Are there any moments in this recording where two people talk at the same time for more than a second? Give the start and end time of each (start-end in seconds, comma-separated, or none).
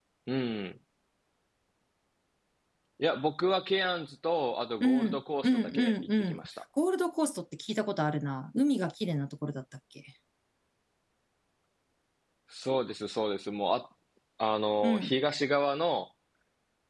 4.8-6.4